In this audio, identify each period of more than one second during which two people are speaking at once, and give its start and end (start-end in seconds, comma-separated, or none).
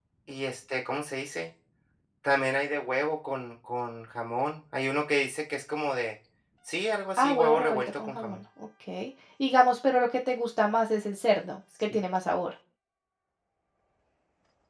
7.2-8.4